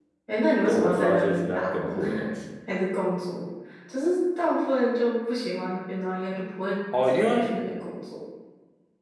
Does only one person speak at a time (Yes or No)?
No